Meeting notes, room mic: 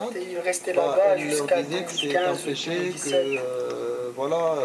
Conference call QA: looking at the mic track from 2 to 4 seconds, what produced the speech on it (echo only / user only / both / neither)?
both